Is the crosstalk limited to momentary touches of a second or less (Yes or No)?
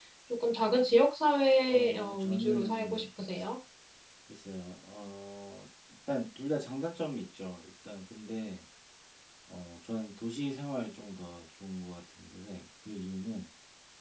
No